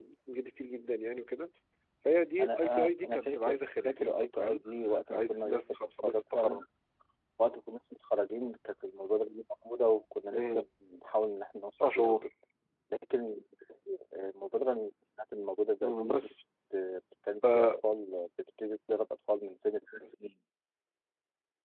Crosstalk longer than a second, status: present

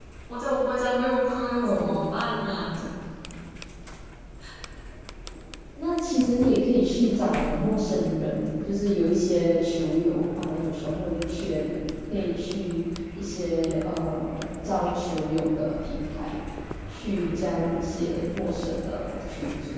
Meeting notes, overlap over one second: none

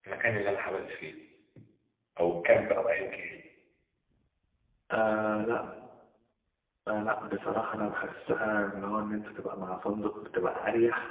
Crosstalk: none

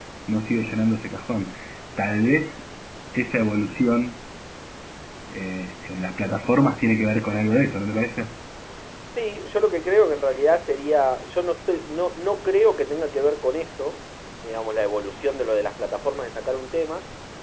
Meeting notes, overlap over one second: none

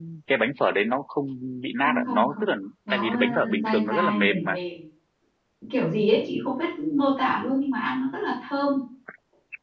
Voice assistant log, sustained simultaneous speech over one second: present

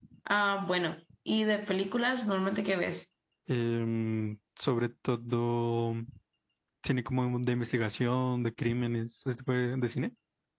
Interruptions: none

